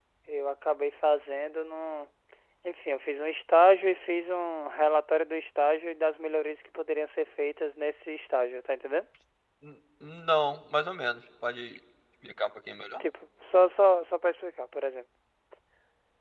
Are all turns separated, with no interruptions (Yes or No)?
Yes